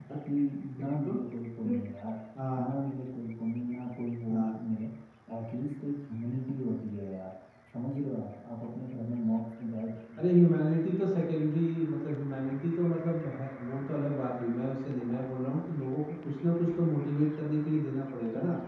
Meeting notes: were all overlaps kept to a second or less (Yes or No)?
Yes